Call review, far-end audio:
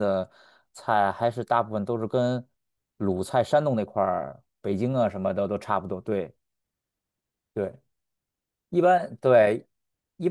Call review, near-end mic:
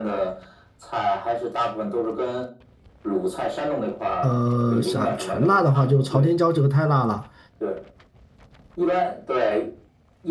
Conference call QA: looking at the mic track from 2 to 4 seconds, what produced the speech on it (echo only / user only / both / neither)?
echo only